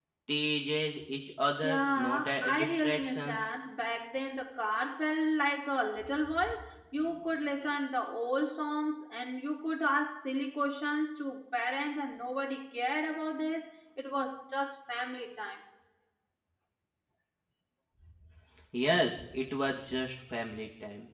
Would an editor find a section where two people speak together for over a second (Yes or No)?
Yes